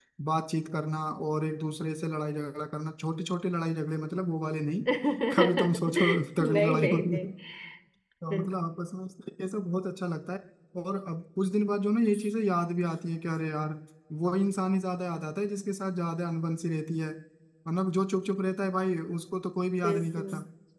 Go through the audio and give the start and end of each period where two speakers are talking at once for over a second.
5.4-7.2

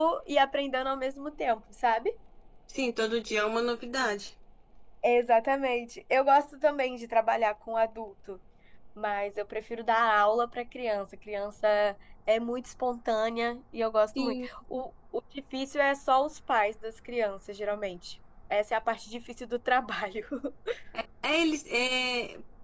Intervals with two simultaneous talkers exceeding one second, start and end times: none

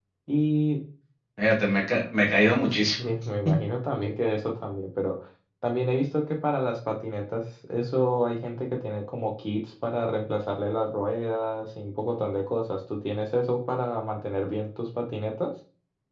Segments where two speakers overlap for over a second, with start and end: none

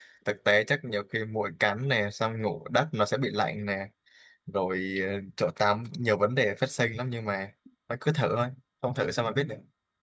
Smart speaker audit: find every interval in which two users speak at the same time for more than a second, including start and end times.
none

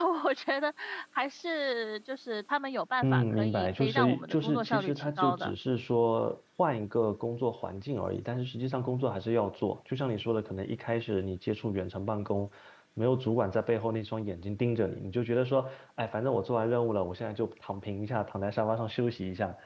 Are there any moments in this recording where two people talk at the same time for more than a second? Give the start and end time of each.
3.0-5.5

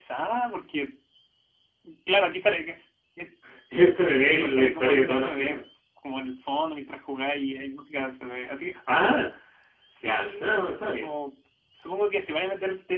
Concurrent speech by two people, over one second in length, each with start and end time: 4.3-5.6

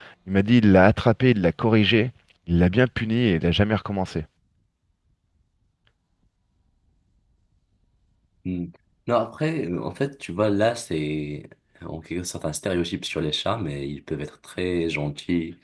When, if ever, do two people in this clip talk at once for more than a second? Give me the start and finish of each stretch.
none

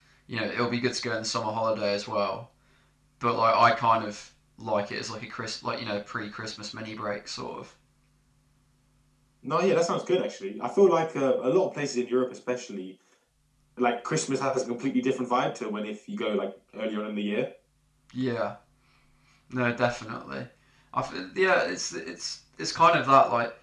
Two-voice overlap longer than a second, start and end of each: none

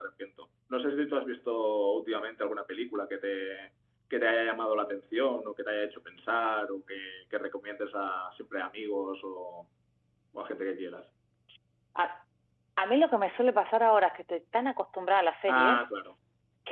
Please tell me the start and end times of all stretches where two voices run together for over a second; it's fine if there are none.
none

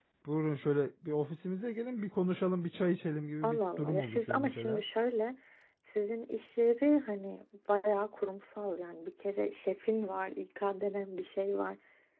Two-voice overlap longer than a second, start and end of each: 3.4-4.8

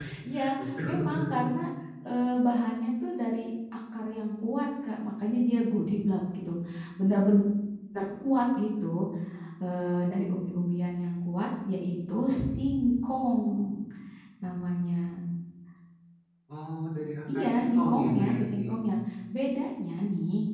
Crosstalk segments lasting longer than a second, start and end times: 17.4-18.6

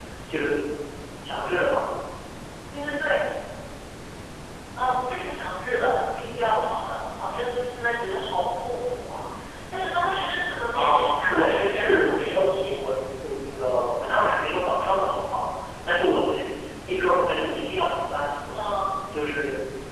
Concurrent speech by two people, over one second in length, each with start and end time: 10.7-12.8

